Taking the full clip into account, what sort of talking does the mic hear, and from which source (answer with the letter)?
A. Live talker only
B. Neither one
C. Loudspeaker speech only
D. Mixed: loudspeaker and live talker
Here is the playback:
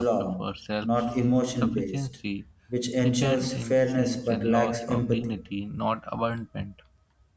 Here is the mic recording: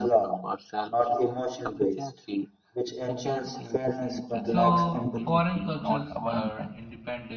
D